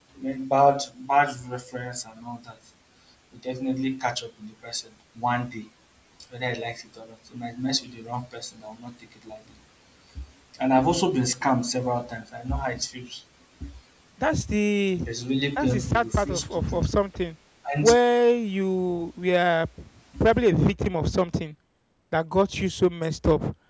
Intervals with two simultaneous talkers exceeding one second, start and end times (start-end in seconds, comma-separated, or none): 15.6-16.9